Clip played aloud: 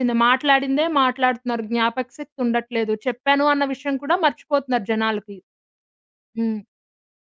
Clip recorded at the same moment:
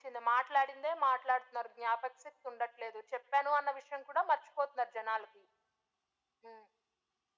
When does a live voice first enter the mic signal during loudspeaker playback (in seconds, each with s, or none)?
none